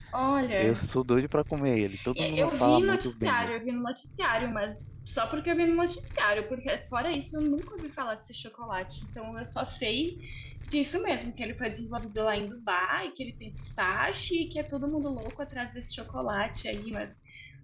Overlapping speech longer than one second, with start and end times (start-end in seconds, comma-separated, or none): 2.1-3.5